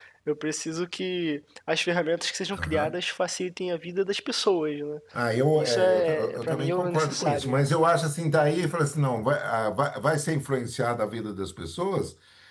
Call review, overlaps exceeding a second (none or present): present